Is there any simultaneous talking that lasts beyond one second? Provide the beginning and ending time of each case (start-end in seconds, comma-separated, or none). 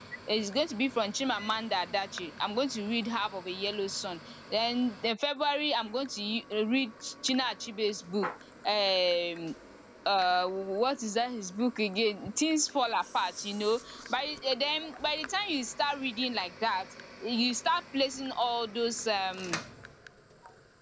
none